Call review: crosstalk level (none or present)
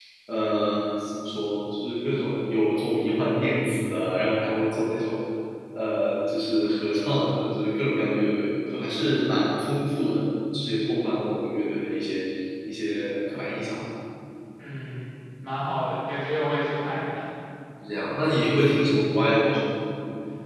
none